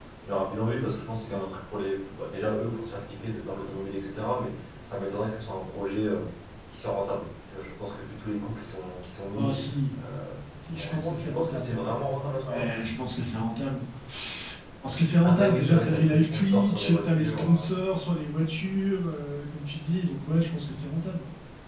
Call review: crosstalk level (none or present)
present